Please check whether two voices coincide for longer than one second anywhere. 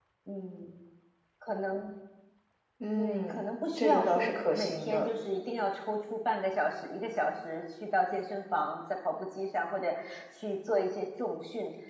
Yes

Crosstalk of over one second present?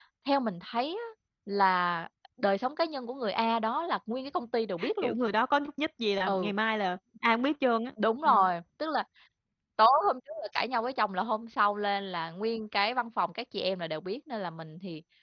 No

